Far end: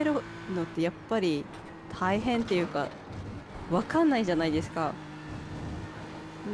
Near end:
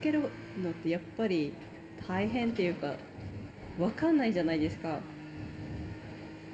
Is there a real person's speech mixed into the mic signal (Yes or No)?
No